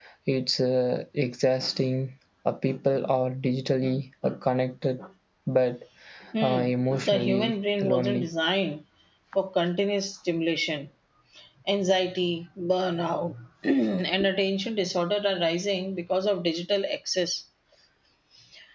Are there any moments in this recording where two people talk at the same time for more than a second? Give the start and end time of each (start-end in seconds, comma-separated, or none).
6.4-8.3